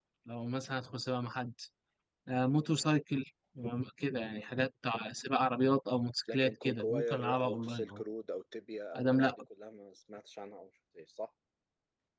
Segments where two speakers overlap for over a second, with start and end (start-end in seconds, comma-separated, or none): 6.3-8.0